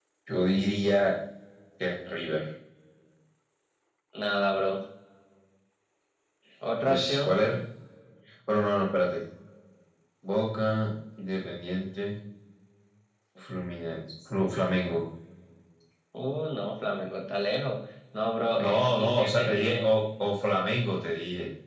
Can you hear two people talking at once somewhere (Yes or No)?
Yes